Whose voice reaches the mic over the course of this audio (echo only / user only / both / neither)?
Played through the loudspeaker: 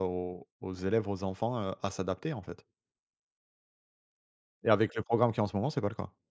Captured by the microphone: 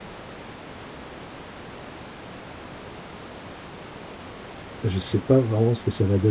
user only